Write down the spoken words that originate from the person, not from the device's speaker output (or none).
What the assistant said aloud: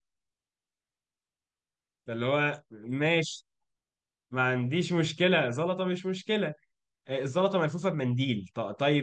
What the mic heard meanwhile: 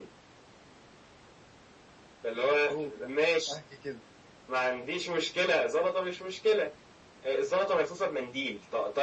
هو ده احكي كده